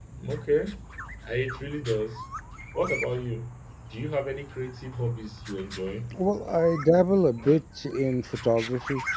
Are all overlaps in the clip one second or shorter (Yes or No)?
Yes